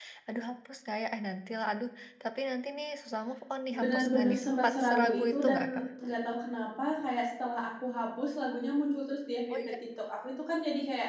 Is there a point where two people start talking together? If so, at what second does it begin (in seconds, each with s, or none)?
3.7 s